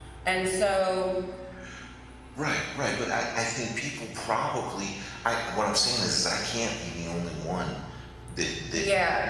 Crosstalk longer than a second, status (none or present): none